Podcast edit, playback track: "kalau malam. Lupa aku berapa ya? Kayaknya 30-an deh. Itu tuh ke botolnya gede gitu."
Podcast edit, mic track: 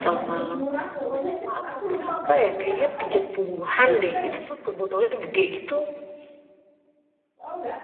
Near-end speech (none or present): present